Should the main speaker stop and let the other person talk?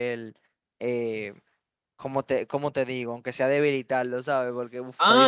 Yes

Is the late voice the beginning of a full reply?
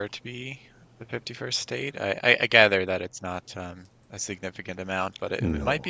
No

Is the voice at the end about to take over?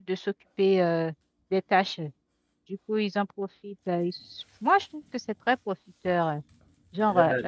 No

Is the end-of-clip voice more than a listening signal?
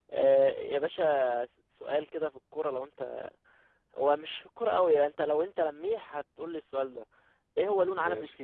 No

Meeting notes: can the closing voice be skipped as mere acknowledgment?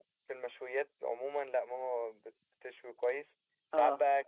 Yes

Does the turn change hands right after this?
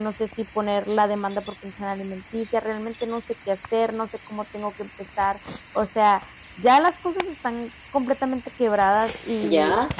Yes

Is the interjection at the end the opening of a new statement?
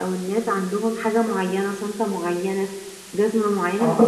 No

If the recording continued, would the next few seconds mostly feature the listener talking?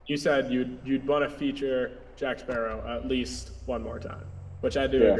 No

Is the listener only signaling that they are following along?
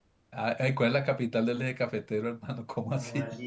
No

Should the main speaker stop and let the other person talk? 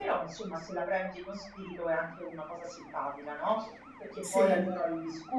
No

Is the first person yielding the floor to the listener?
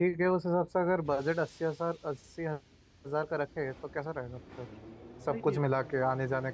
No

